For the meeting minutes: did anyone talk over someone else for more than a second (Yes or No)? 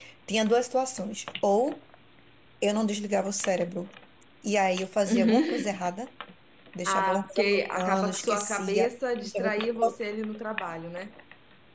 Yes